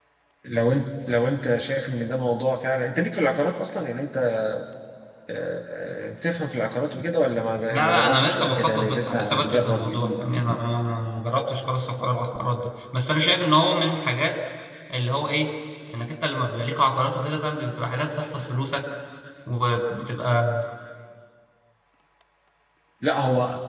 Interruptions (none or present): present